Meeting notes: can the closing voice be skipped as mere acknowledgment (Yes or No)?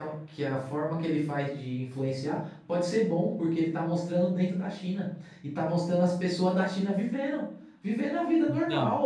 Yes